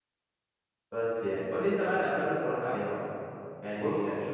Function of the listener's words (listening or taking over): listening